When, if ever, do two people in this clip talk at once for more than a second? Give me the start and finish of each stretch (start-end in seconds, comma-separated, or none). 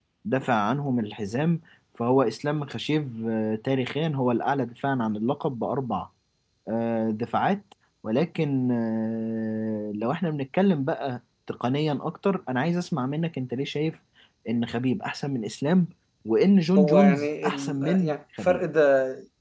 16.8-18.6